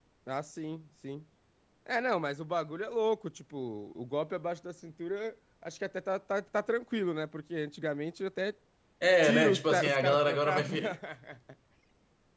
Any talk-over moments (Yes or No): Yes